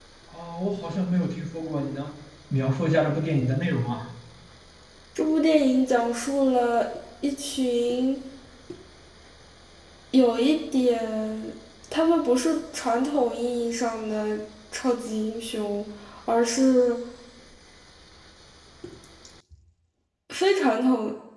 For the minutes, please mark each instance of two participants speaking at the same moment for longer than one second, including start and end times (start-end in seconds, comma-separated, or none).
none